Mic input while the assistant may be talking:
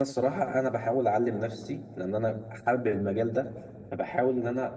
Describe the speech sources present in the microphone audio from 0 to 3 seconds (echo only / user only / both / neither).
user only